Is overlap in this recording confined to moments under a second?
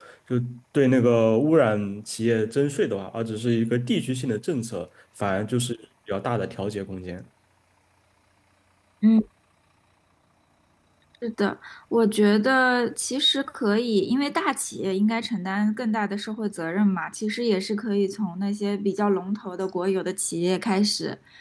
Yes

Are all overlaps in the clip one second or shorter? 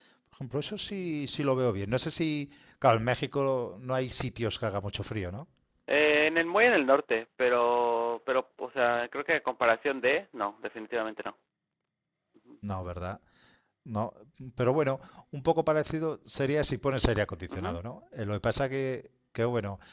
Yes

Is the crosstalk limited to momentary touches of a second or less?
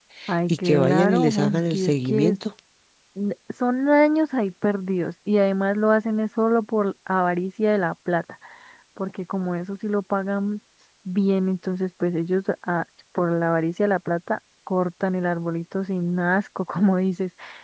No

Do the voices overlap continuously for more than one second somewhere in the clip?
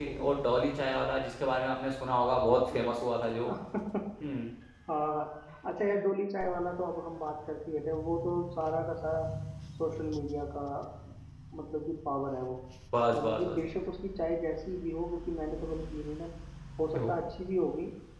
No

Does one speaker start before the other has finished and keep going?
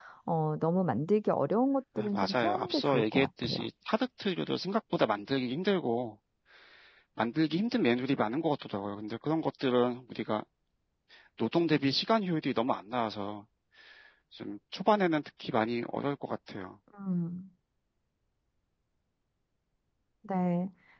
Yes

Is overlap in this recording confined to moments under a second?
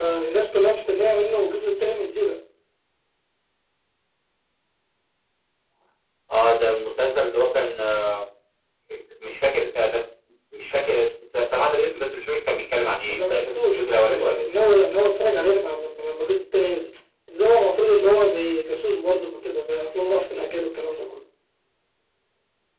No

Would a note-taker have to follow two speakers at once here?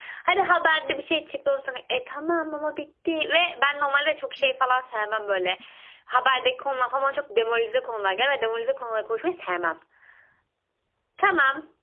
No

